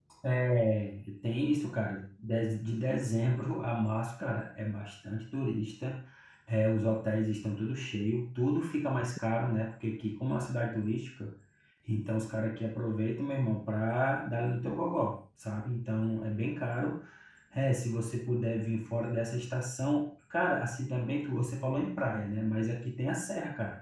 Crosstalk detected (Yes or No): No